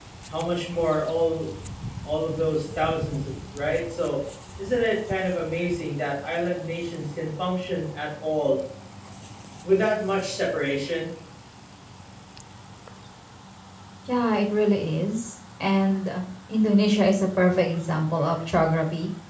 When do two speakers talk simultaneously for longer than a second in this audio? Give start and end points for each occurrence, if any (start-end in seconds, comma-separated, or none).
none